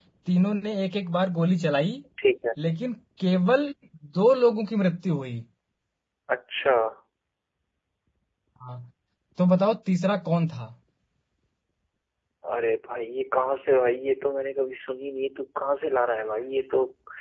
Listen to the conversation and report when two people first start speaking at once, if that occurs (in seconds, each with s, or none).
none